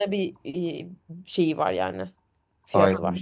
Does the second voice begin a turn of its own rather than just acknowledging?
Yes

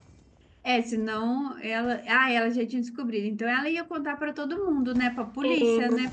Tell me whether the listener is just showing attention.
No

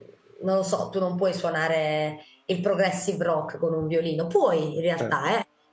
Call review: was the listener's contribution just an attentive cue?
Yes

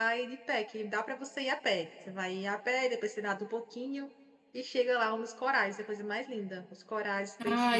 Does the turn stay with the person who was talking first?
No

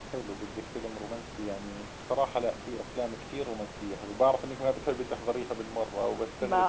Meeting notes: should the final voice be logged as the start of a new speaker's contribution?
Yes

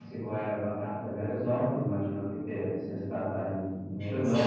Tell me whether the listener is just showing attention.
No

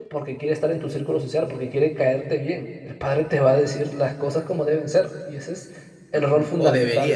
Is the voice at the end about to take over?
Yes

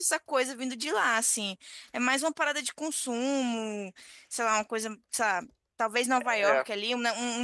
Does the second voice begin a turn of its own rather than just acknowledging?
No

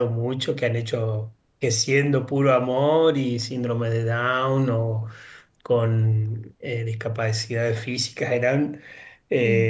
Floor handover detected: No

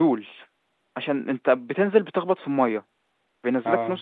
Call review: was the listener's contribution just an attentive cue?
Yes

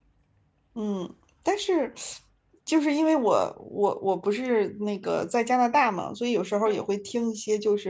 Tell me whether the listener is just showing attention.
Yes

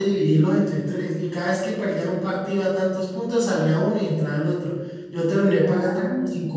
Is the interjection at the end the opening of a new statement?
No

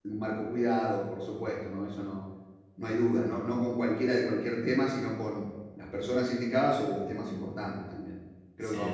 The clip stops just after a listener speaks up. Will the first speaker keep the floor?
No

